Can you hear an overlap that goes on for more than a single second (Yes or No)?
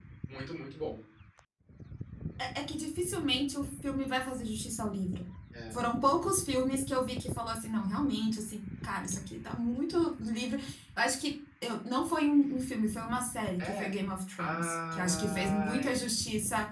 Yes